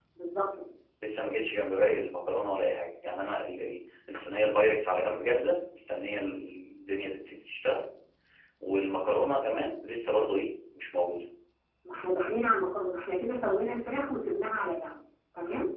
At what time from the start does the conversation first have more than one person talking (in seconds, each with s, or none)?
none